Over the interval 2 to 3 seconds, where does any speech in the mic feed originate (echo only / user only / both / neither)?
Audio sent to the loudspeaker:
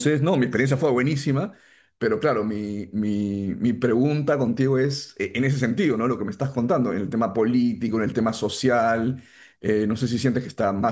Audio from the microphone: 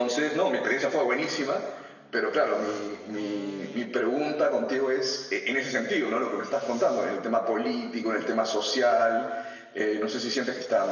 echo only